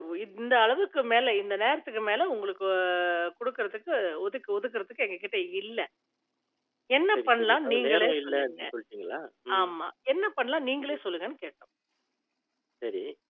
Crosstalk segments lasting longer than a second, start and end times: 7.2-8.5

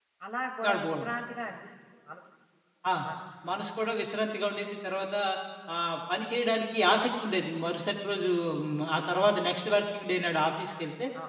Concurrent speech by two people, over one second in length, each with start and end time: none

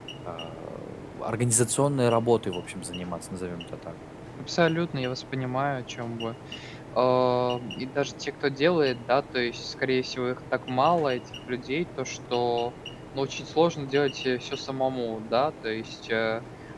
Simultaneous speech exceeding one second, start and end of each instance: none

